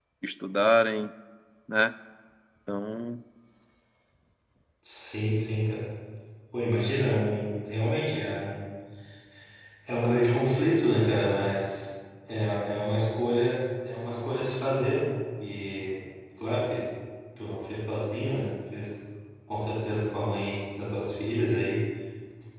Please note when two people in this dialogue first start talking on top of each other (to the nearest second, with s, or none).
none